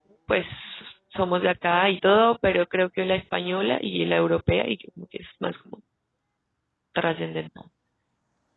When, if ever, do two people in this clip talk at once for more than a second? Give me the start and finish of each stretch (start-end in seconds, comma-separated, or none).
none